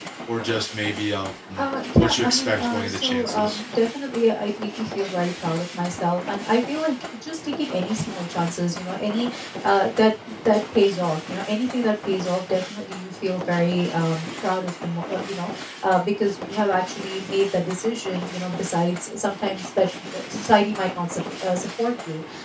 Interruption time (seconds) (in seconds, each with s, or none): 2.0 s